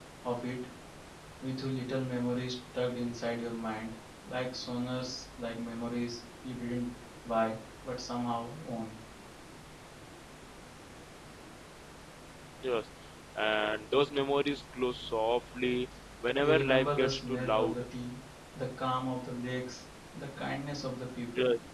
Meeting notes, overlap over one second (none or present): present